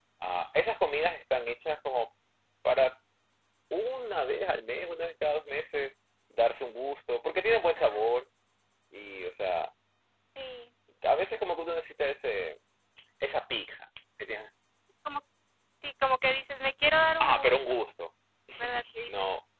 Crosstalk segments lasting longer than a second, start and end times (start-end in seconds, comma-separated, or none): none